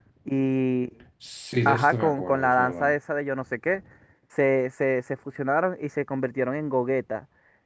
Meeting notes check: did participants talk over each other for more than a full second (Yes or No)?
Yes